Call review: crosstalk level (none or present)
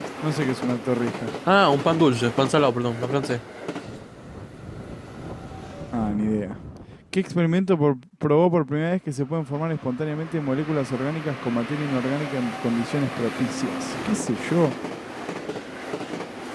none